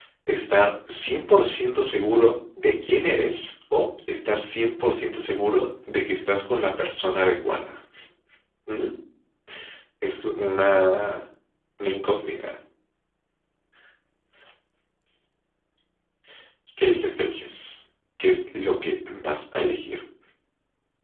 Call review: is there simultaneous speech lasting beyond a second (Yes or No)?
No